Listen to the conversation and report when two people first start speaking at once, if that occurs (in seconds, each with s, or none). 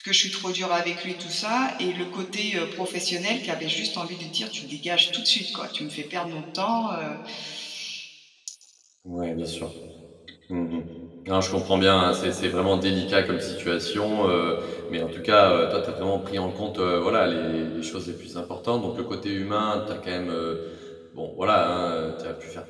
none